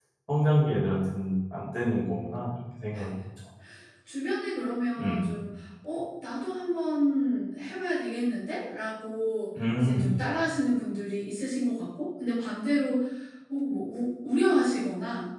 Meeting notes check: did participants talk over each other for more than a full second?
No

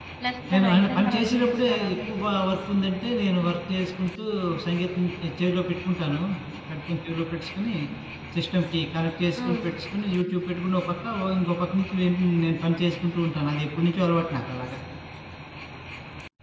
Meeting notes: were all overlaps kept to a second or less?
No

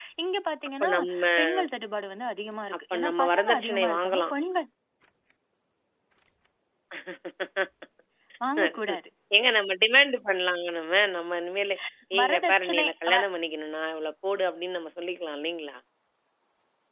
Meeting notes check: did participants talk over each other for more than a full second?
Yes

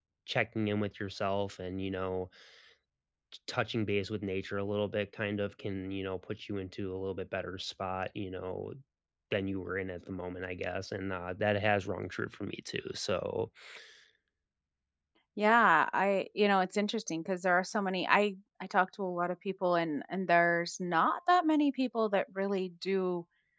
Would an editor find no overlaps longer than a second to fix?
Yes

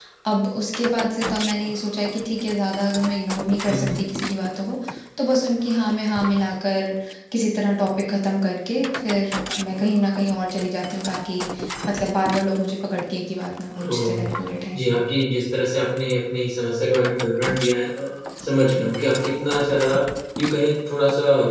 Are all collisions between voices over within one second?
Yes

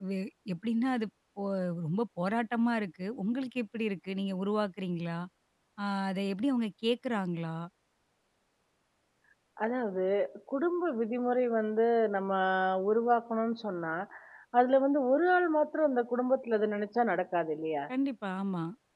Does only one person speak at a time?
Yes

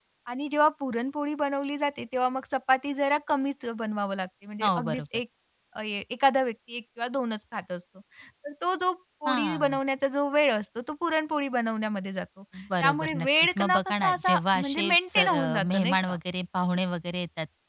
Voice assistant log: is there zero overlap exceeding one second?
No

